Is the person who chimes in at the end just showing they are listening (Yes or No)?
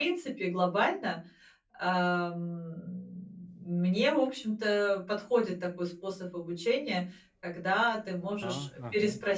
Yes